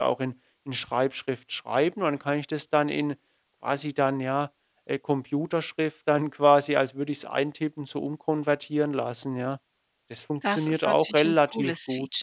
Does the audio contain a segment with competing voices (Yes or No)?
Yes